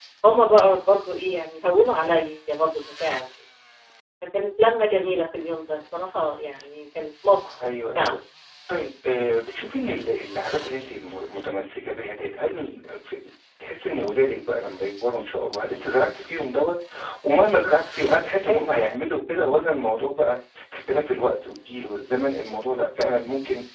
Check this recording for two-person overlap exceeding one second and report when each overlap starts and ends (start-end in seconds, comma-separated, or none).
none